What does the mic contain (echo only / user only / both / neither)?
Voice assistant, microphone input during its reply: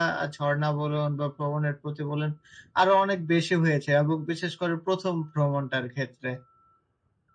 echo only